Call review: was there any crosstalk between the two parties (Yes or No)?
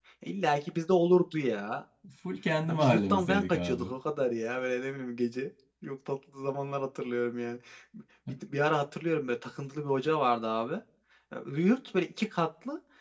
Yes